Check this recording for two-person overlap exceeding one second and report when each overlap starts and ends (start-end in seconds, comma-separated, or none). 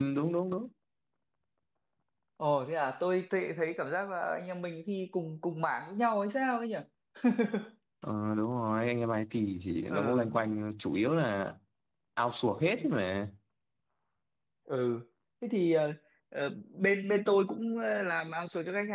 none